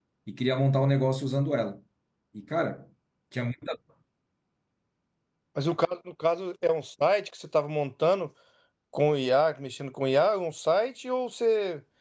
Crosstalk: none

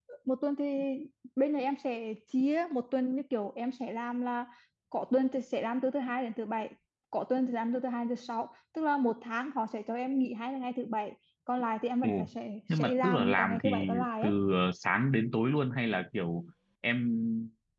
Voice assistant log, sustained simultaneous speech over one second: present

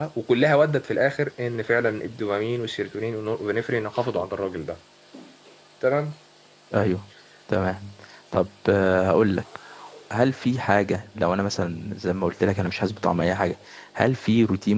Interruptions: none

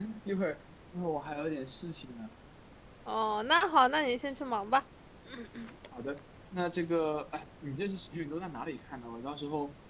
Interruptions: none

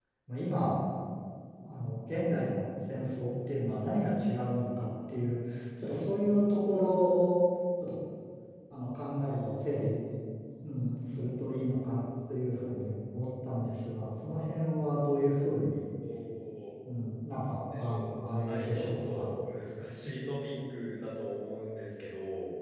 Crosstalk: present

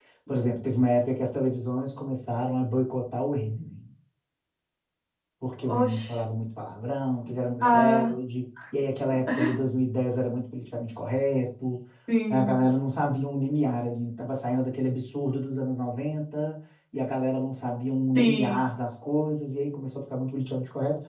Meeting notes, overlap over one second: none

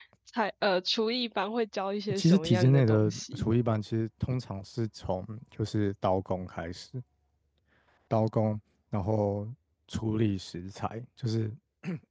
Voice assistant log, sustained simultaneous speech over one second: present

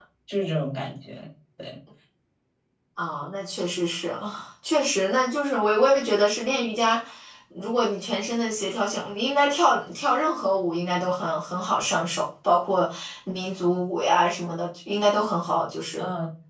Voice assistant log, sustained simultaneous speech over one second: none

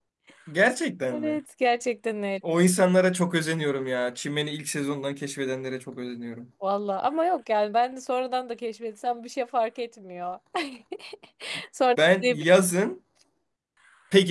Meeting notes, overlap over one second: none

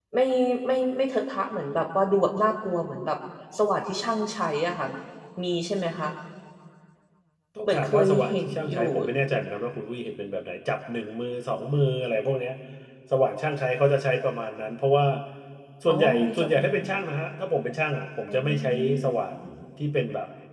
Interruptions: present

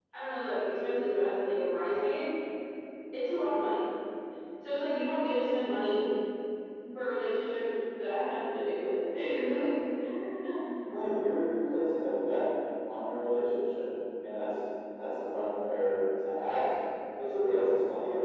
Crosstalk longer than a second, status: none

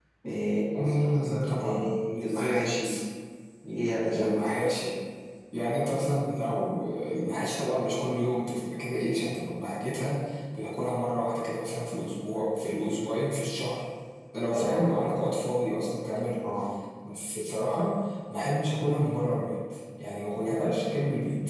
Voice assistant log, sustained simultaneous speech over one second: present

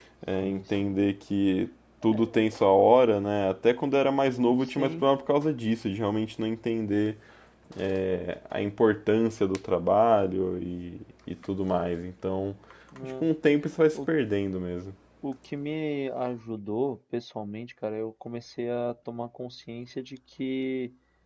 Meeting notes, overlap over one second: none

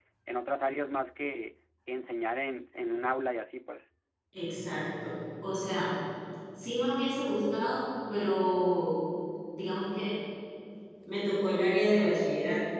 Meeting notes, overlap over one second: none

